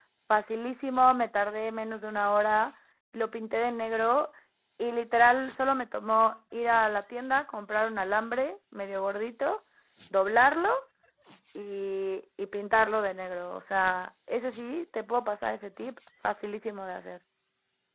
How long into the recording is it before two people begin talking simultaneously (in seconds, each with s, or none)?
none